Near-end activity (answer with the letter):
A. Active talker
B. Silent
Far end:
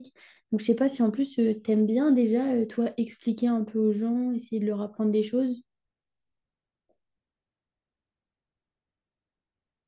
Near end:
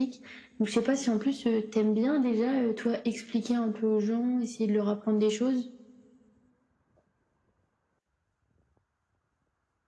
B